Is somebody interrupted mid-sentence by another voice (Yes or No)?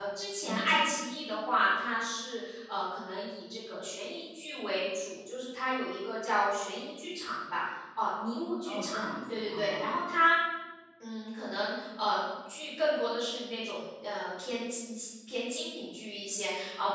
Yes